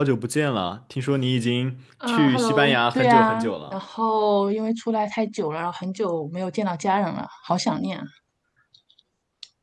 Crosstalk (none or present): present